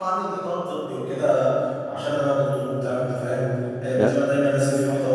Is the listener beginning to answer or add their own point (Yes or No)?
No